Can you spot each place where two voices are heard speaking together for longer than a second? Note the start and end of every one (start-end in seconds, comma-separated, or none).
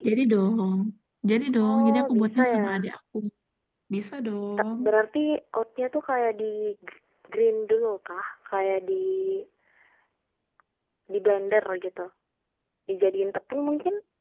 1.6-2.9